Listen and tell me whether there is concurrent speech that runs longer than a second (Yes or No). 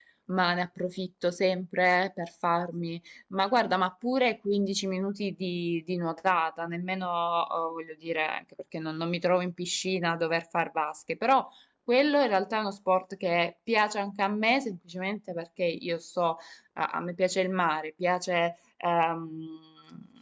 No